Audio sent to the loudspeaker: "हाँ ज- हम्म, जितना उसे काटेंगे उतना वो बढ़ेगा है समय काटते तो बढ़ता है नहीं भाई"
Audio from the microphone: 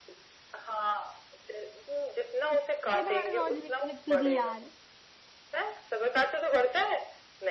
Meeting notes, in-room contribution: present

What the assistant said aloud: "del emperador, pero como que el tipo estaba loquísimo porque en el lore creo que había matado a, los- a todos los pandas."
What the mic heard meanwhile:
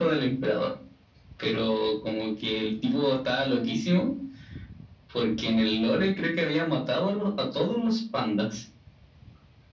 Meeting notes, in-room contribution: none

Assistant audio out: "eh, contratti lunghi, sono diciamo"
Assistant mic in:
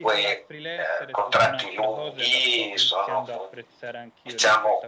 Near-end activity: present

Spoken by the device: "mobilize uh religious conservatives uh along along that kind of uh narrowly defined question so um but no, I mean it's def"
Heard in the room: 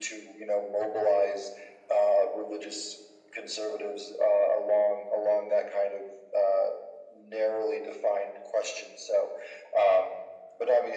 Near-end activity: none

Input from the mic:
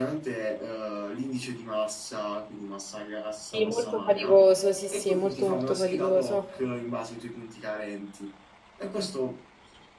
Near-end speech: present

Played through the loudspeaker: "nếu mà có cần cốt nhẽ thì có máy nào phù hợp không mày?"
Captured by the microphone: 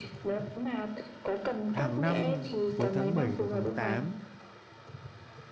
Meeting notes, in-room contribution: present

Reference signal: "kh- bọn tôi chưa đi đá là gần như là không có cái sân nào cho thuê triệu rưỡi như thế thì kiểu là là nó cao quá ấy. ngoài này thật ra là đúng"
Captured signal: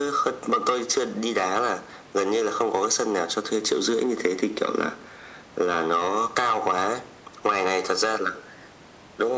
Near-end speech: none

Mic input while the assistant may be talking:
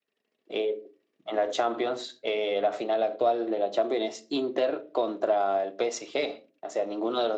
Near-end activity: none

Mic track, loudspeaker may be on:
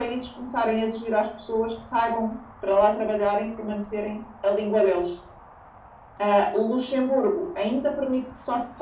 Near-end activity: none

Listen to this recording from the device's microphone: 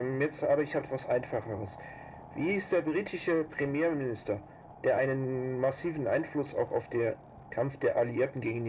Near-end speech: none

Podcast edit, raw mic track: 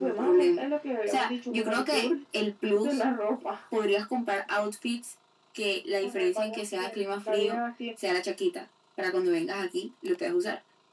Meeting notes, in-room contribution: none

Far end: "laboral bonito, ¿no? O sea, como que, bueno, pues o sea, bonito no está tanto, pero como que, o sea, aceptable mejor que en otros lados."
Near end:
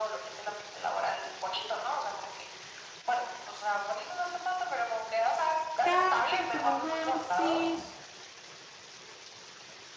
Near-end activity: present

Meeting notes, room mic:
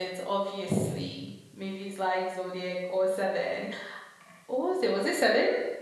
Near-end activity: present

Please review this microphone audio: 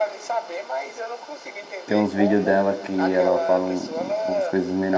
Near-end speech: present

